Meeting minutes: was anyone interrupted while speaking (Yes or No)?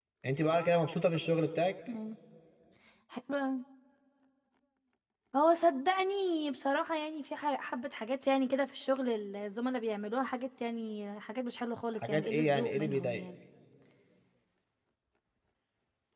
Yes